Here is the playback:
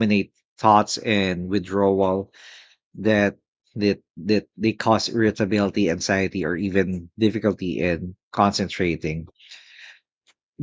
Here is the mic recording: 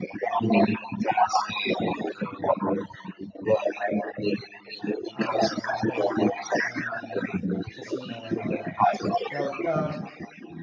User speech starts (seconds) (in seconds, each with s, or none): 5.1 s